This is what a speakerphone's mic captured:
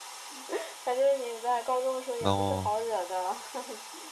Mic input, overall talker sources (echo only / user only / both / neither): both